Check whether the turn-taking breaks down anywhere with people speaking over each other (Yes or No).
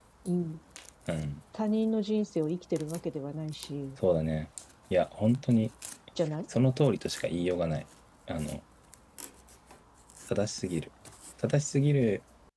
No